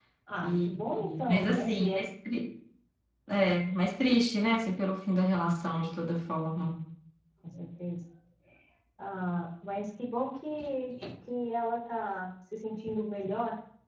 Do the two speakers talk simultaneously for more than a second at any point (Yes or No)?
Yes